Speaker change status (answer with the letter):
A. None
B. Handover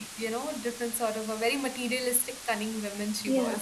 B